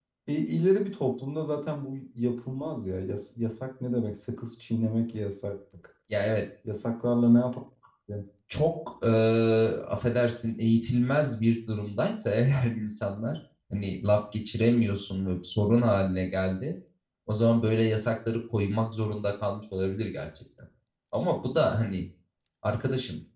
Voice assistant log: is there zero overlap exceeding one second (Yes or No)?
Yes